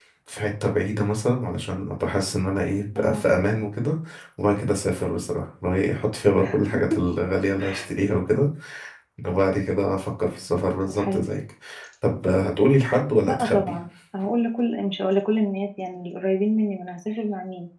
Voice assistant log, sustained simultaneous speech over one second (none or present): none